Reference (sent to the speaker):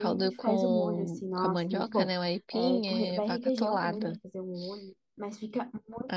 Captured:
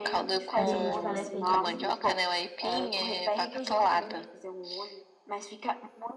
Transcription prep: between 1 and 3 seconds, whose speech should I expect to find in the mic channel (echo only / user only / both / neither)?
both